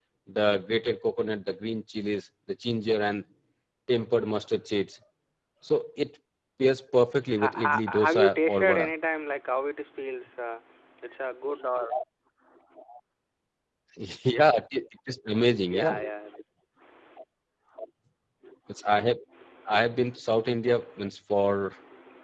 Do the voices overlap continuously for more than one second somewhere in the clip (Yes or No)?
Yes